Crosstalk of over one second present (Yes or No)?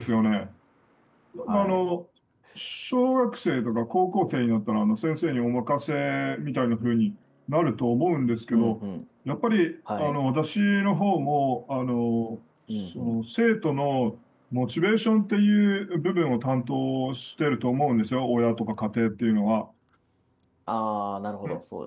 No